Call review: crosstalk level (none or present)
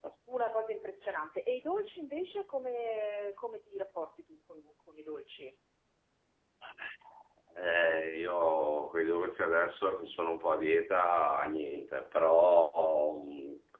none